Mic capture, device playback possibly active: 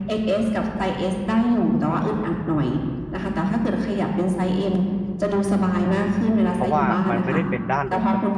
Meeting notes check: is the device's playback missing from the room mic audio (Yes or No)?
No